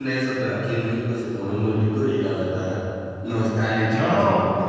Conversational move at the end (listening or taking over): taking over